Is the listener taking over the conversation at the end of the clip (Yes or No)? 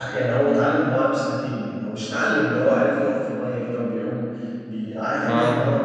No